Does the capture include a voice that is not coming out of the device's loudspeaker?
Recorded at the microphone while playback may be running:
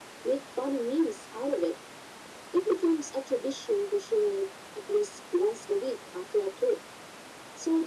No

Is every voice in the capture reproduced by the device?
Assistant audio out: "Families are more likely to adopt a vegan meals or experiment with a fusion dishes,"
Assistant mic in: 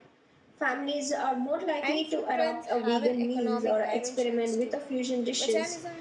No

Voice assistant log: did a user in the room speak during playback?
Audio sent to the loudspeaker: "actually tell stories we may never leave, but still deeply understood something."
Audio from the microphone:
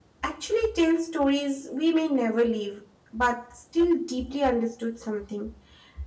No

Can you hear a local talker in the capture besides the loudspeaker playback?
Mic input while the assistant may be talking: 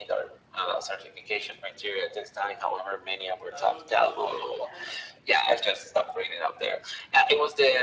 Yes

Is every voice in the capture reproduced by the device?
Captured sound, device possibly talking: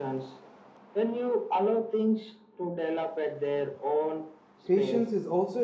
No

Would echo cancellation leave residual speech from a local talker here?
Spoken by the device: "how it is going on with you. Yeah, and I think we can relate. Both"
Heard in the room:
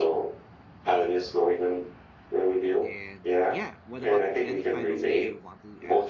Yes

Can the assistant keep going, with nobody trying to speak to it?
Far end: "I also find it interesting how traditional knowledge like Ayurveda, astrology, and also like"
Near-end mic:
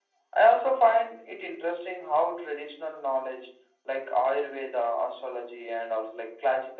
Yes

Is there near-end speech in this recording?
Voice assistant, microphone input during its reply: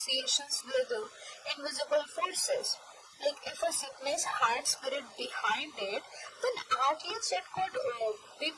No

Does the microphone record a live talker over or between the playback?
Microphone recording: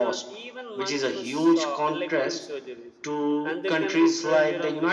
No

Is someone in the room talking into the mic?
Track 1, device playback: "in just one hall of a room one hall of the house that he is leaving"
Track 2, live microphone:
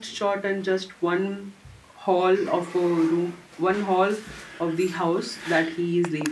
No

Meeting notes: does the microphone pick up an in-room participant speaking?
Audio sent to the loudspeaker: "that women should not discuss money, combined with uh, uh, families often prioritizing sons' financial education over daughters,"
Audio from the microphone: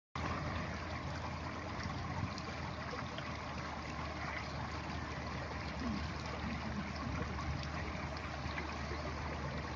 No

